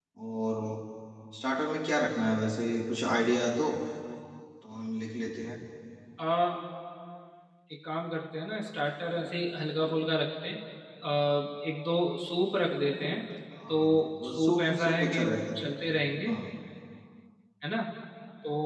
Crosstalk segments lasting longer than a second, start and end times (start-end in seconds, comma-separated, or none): 13.7-15.5